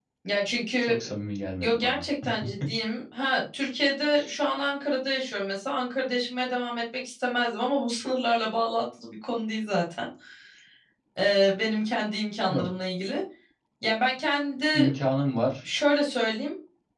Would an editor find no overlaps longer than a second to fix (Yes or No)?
Yes